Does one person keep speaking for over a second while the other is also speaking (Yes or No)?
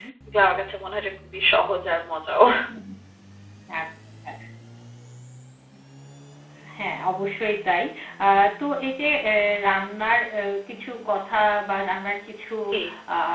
No